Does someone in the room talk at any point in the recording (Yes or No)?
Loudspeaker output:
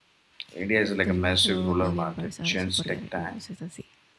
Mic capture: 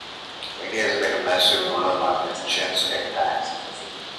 No